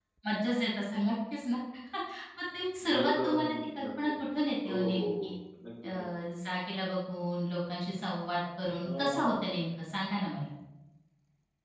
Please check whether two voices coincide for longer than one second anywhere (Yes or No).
Yes